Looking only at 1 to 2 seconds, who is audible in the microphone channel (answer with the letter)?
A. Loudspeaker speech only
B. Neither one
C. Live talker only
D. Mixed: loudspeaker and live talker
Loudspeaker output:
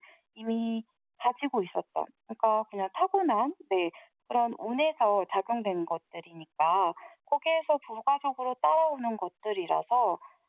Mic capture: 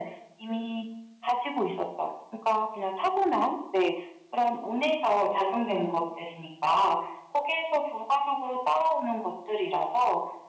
A